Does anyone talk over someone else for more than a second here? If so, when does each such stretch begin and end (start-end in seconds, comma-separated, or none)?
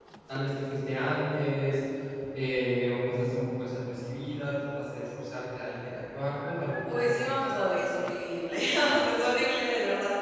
none